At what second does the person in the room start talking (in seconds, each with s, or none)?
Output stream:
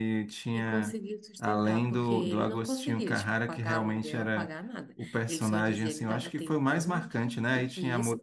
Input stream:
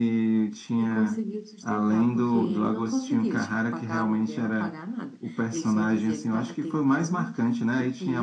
none